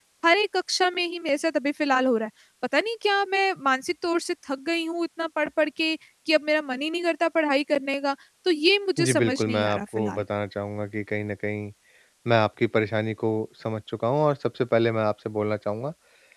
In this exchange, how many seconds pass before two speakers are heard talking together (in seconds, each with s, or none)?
9.0 s